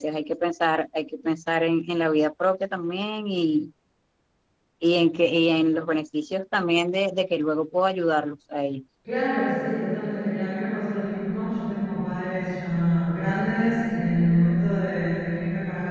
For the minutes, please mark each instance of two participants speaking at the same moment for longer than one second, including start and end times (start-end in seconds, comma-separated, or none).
none